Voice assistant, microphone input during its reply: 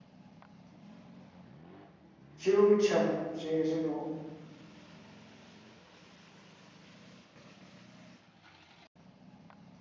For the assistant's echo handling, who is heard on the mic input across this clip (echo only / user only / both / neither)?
user only